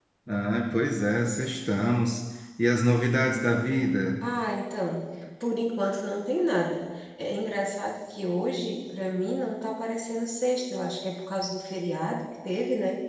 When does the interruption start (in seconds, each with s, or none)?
none